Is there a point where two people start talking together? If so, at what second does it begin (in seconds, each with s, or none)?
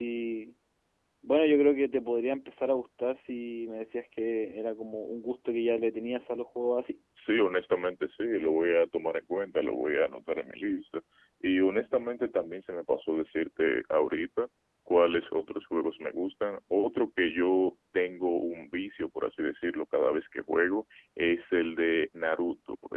none